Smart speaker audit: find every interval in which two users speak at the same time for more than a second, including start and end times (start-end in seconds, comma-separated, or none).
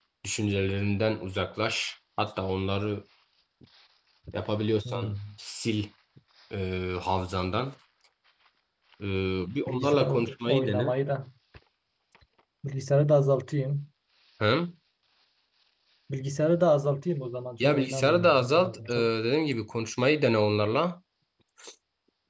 9.7-10.9, 17.6-19.1